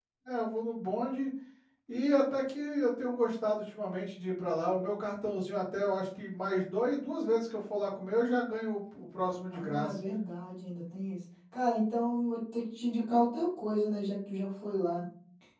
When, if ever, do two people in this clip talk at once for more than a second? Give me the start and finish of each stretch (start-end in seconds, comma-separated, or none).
none